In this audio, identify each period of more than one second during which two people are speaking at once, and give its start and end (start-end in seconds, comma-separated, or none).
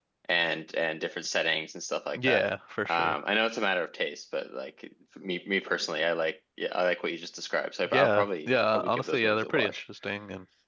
7.9-9.8